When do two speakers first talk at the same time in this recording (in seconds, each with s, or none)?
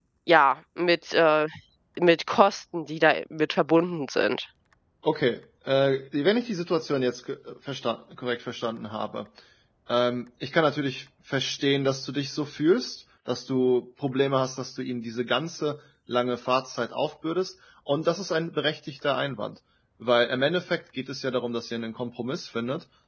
none